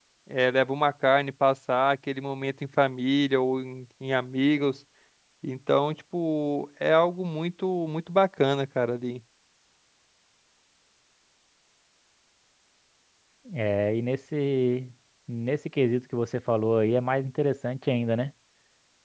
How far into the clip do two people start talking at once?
none

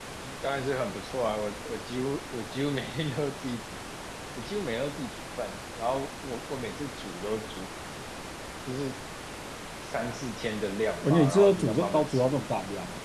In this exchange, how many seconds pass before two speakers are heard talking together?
11.0 s

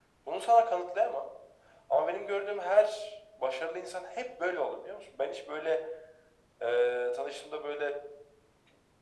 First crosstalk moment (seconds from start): none

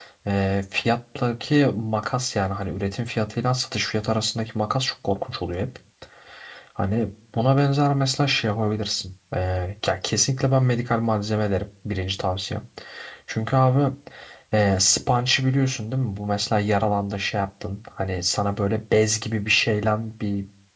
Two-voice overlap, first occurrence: none

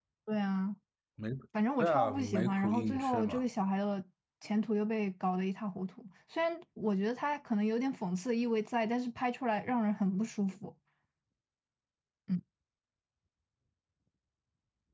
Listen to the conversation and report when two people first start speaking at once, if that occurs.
1.8 s

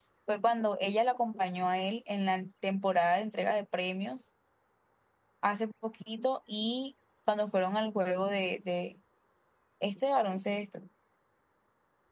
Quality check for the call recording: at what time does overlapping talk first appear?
none

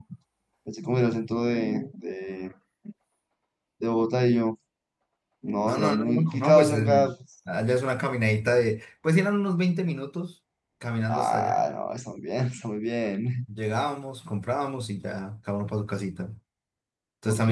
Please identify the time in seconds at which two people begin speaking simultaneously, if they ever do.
5.7 s

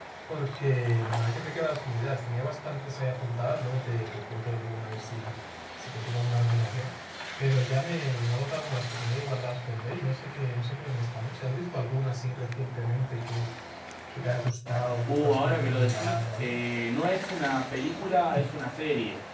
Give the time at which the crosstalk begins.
15.1 s

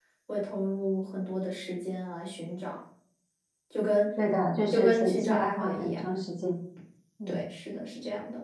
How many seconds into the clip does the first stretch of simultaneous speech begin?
4.7 s

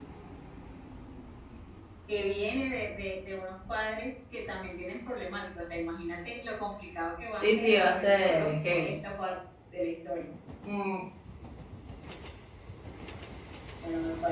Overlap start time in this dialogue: 7.4 s

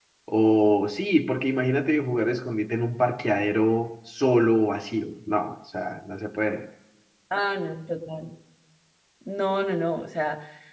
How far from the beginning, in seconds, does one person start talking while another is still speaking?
none

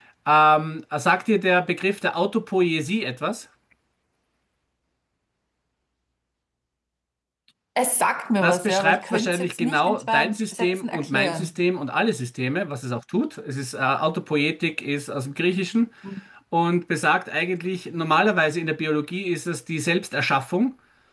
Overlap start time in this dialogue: 8.4 s

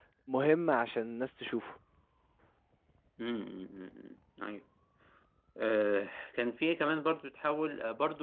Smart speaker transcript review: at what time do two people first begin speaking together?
none

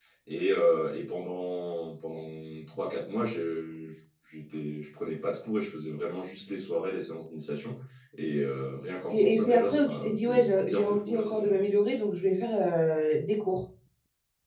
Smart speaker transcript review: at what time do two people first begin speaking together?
9.1 s

